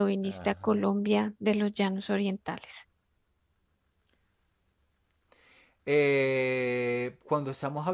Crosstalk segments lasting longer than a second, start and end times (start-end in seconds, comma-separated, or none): none